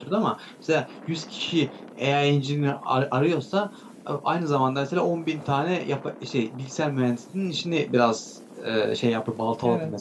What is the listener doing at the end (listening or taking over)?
listening